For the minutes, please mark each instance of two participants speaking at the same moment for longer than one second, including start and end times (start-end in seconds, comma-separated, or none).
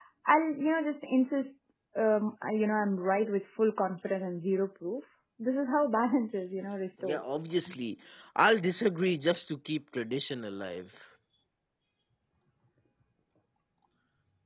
none